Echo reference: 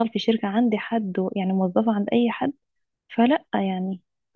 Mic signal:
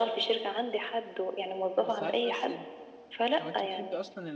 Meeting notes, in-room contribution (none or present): present